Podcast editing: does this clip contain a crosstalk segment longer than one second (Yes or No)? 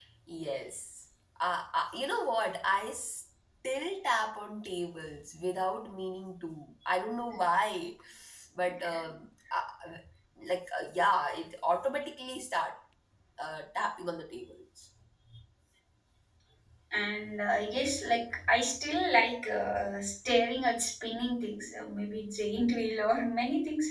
No